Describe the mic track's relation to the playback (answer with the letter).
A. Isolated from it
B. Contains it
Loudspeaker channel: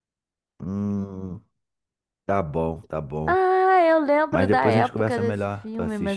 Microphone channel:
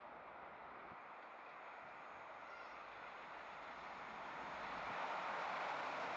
A